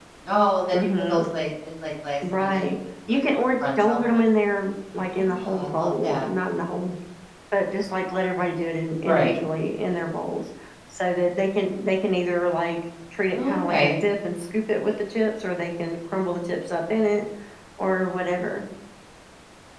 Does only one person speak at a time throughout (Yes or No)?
No